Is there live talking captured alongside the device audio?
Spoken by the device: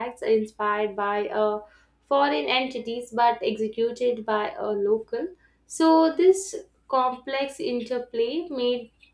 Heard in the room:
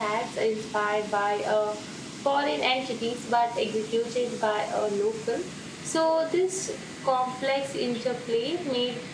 No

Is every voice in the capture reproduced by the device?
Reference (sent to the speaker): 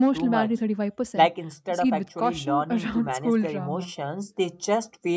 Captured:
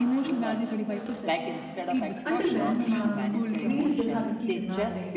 No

